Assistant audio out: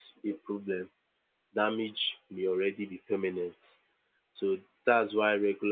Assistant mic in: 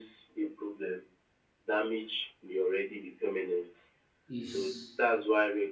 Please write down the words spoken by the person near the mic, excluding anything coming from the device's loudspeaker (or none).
is